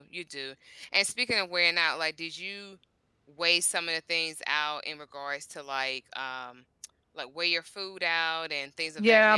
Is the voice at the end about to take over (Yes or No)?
Yes